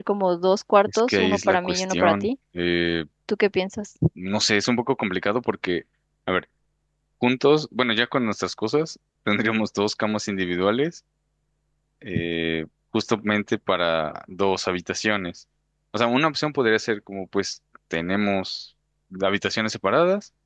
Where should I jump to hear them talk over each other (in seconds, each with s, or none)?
0.9 s